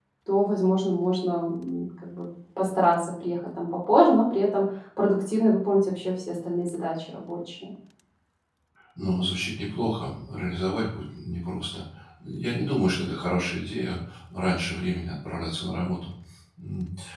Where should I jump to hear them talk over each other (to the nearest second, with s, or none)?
none